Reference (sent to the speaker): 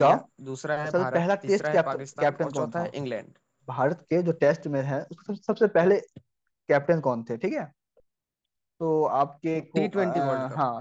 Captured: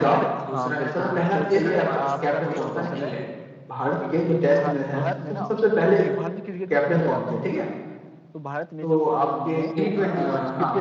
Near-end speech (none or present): present